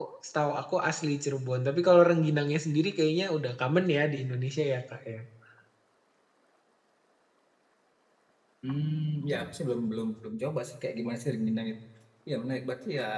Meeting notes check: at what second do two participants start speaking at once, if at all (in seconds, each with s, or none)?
none